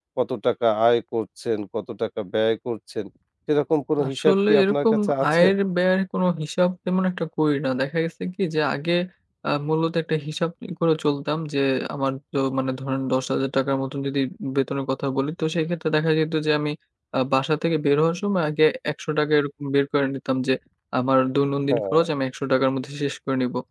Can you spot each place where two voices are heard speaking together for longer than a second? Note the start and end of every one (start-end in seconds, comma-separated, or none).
4.0-5.4